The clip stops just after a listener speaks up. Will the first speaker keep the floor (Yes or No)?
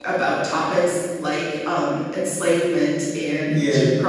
Yes